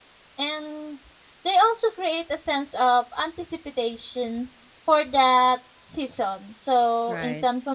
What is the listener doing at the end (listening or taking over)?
listening